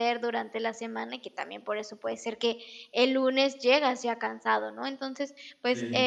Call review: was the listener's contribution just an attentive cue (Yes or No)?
Yes